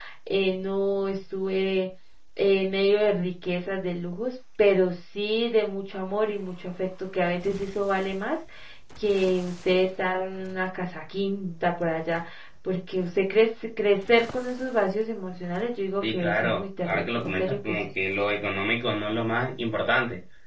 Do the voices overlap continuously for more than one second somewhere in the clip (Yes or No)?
Yes